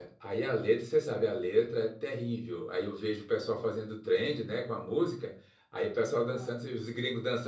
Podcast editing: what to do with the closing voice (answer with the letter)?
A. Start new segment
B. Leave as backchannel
B